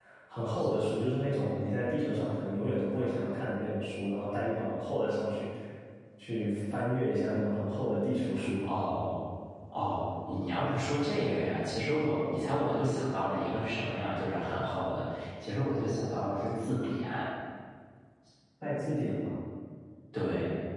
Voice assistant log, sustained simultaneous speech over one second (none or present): none